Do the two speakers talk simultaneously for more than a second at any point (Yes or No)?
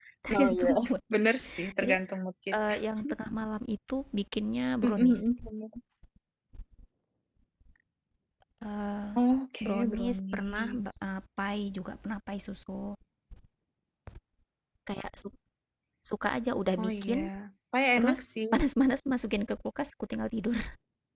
Yes